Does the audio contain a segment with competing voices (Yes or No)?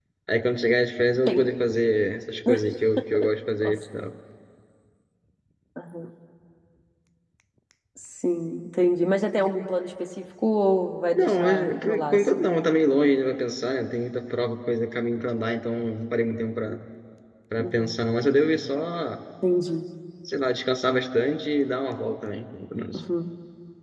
Yes